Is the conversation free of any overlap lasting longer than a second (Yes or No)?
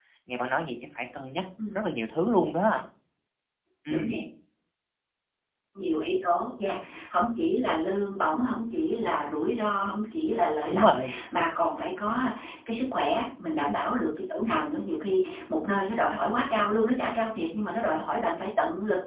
Yes